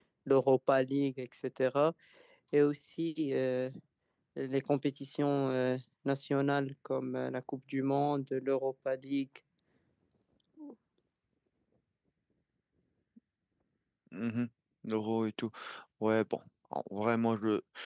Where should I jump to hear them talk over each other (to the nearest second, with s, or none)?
none